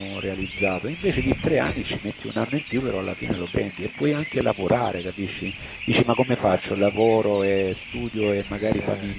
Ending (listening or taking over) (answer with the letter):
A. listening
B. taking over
A